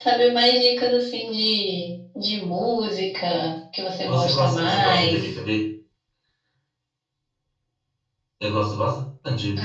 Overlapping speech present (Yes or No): Yes